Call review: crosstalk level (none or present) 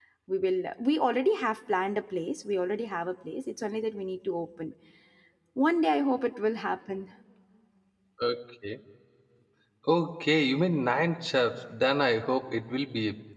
none